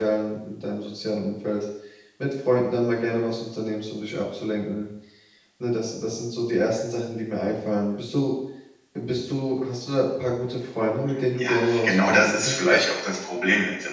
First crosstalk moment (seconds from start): 11.4 s

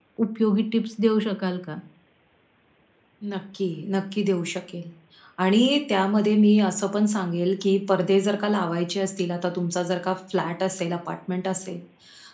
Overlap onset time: none

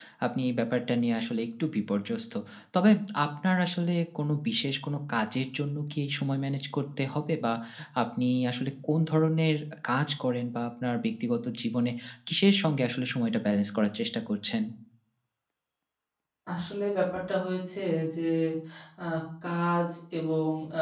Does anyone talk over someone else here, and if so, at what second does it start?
none

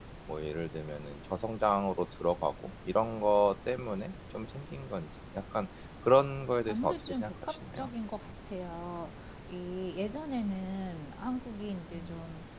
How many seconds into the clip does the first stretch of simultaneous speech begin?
6.7 s

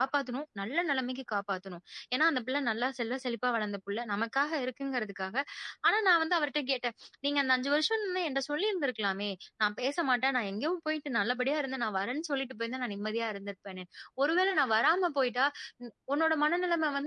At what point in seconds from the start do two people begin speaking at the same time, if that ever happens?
none

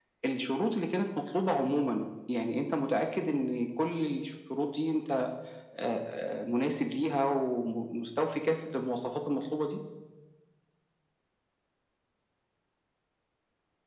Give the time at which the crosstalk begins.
none

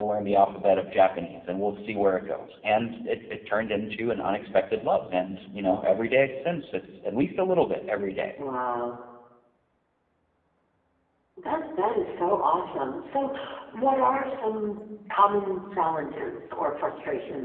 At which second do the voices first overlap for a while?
none

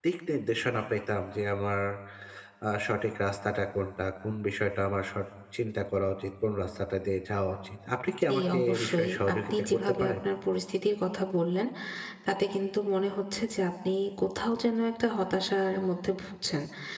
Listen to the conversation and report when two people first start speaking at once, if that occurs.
8.1 s

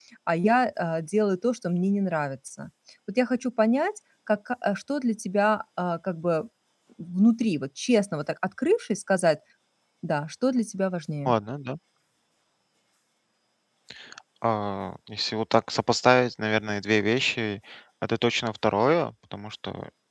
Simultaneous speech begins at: none

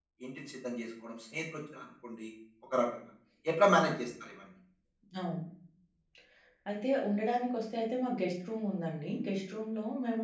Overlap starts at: none

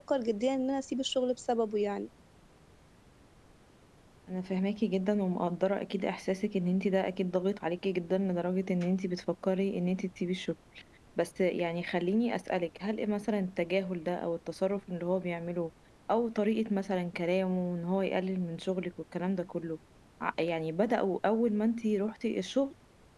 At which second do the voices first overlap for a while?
none

